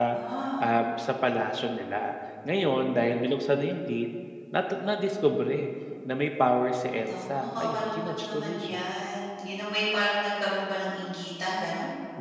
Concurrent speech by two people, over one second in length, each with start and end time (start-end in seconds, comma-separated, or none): 7.1-8.8